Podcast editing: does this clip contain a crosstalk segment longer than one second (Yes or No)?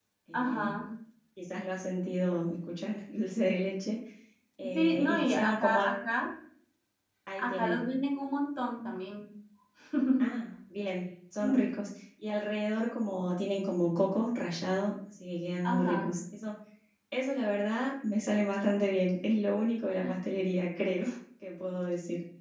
Yes